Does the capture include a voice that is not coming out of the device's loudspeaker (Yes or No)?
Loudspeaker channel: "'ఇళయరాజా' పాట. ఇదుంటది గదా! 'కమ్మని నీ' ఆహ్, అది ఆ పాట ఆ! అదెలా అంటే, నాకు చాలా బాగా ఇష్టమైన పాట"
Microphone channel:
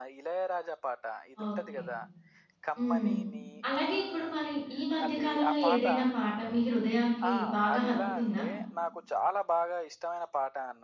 Yes